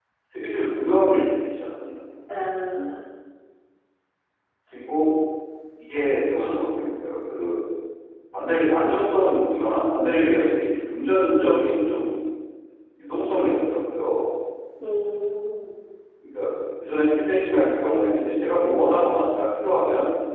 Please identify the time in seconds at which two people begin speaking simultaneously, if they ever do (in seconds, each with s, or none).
none